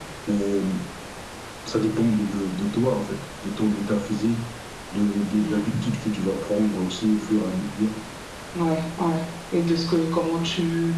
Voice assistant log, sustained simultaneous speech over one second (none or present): none